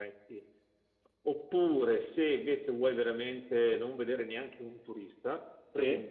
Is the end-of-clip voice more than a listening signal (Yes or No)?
No